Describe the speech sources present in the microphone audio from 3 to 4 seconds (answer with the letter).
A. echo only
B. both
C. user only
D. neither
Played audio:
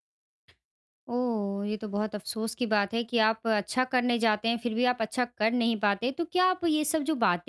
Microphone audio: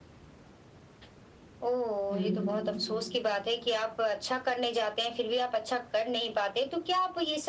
A